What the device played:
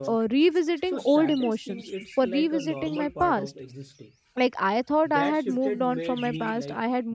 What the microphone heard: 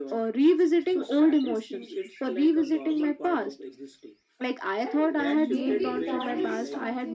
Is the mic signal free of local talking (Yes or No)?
No